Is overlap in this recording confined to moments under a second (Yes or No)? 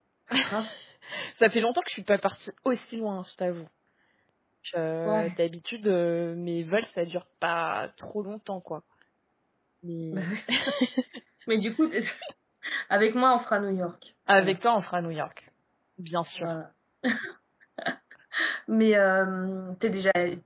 Yes